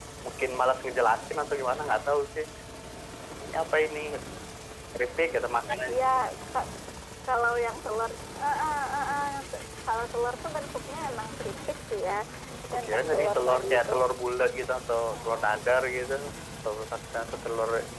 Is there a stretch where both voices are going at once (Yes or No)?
Yes